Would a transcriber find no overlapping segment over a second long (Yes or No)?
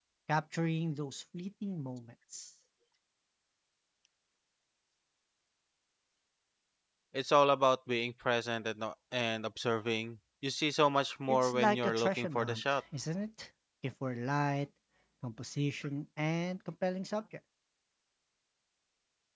No